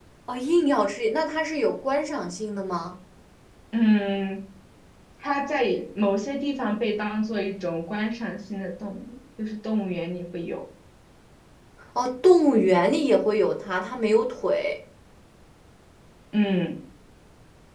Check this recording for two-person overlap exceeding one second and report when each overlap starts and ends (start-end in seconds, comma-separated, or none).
none